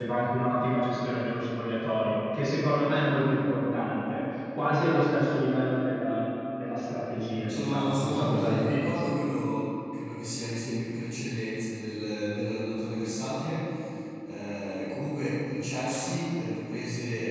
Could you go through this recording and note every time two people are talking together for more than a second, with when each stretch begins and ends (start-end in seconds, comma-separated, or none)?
7.5-8.9